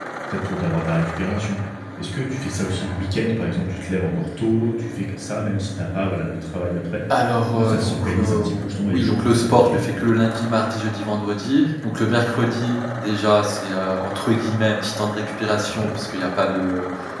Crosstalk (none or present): present